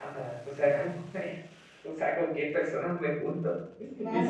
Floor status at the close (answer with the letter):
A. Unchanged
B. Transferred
B